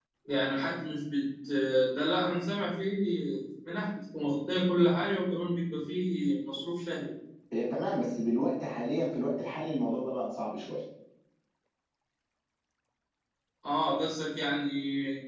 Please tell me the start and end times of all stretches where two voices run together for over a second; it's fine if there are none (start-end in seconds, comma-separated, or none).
none